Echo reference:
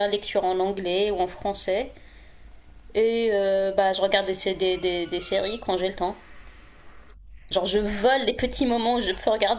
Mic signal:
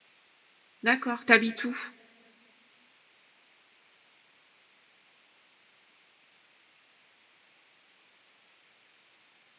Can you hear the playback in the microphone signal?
No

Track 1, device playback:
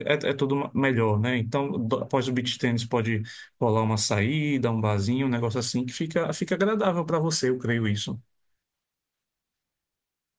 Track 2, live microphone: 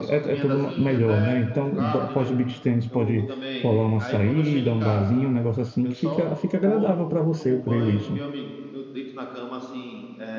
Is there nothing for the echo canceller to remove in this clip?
No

